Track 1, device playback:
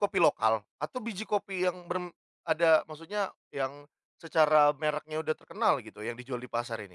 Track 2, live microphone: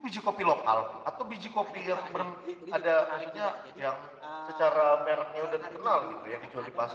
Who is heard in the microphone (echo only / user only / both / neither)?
both